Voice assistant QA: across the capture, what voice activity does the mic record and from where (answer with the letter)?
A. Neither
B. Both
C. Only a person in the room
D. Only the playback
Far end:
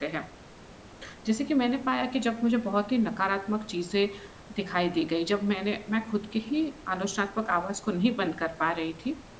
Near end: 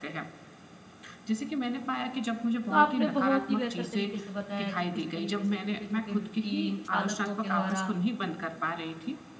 B